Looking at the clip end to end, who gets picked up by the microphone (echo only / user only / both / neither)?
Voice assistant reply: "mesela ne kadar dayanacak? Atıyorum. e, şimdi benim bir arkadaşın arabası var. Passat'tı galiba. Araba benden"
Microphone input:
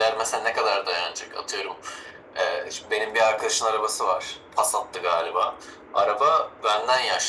echo only